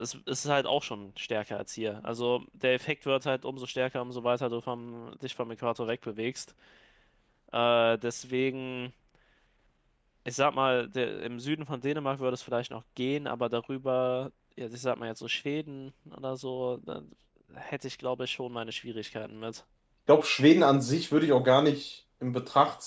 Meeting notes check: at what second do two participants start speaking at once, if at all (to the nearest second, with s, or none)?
none